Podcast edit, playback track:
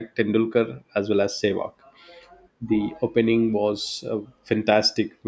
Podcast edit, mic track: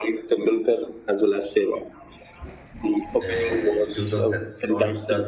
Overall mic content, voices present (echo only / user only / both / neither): both